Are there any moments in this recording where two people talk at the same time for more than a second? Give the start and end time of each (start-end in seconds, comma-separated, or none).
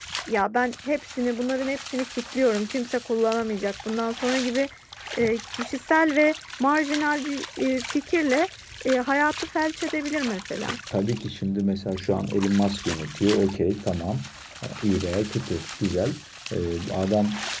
none